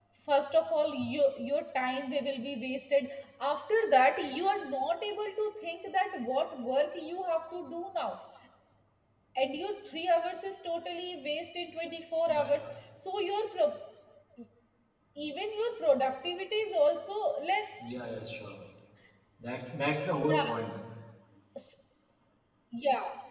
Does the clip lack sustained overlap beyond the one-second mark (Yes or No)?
Yes